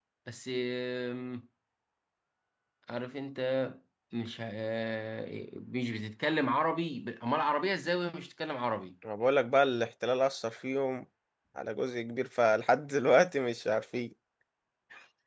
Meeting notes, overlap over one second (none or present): none